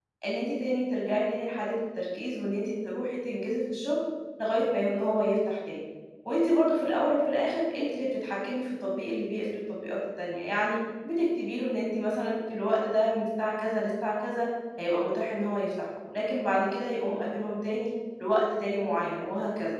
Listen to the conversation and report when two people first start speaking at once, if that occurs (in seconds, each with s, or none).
none